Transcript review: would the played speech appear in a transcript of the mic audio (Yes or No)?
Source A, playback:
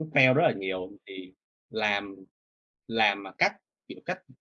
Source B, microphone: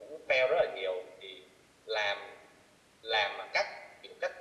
Yes